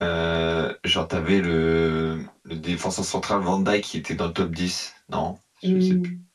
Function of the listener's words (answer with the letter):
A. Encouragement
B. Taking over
B